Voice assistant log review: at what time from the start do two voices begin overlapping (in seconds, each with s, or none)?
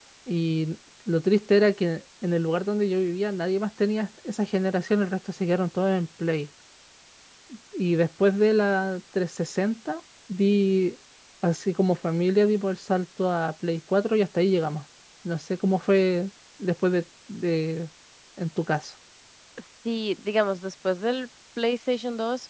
none